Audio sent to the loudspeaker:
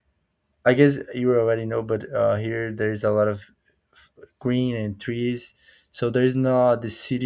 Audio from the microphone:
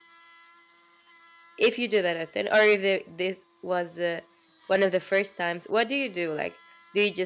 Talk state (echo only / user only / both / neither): user only